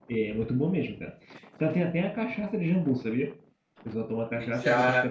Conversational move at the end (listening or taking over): taking over